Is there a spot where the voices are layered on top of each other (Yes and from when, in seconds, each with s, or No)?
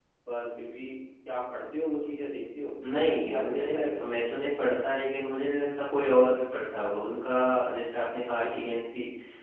Yes, from 2.8 s